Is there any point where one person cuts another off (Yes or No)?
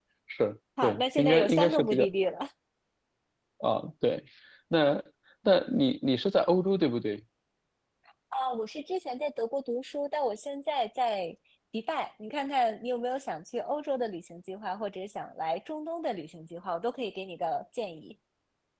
Yes